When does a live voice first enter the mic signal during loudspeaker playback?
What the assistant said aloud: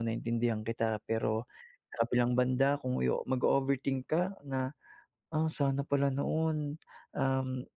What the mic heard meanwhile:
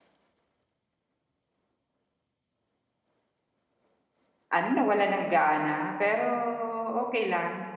5 s

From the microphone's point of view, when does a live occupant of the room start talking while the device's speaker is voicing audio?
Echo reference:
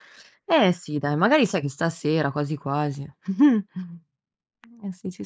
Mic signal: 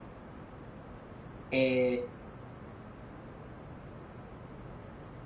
1 s

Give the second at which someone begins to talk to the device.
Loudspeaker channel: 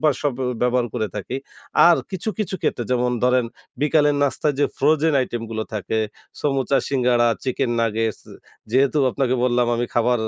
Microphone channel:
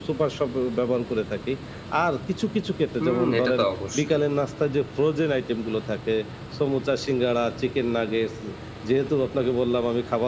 3 s

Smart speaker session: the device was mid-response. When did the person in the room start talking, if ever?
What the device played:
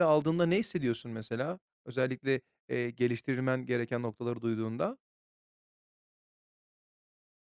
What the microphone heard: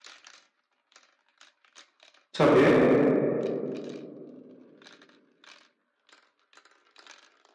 2 s

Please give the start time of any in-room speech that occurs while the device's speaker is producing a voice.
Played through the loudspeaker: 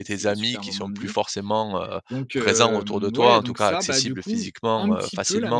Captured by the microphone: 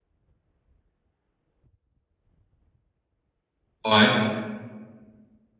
4 s

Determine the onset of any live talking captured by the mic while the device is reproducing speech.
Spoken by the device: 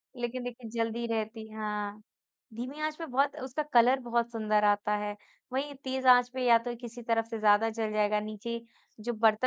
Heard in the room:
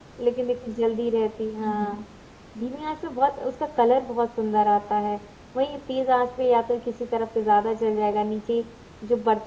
2 s

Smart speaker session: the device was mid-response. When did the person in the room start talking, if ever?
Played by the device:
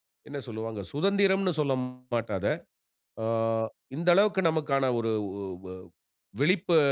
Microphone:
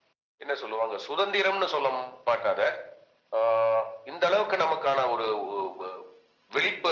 none

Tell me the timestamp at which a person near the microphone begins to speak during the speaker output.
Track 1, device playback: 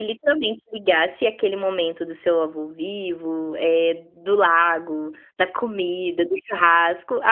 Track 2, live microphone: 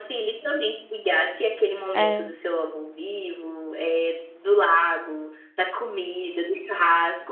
2 s

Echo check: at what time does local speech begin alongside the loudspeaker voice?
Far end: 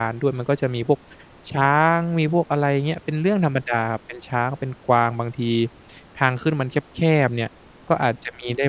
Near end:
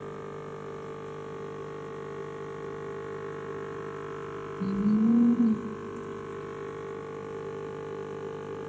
5 s

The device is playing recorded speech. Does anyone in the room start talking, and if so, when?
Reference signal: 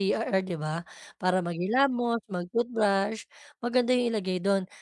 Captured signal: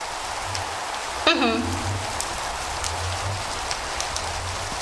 1 s

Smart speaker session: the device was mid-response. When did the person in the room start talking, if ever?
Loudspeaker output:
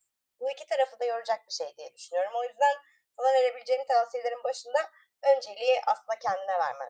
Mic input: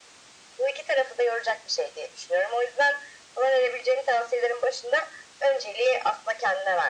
none

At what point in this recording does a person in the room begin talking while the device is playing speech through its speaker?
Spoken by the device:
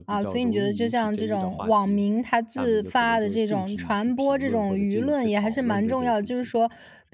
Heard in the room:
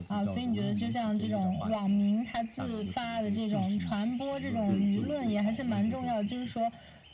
5 s

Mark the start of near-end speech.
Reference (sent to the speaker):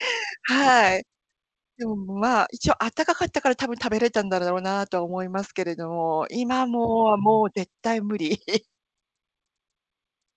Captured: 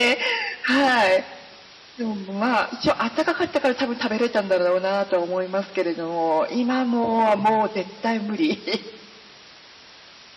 none

